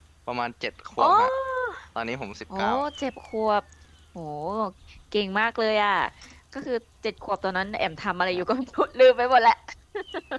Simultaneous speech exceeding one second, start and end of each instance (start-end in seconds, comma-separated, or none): none